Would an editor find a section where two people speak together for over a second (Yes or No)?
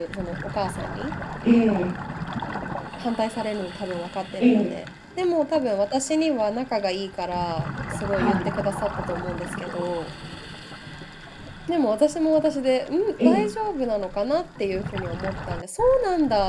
No